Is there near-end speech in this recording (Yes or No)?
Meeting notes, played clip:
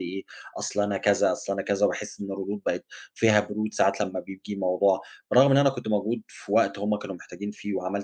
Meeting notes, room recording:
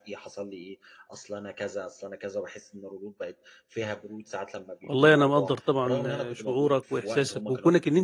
Yes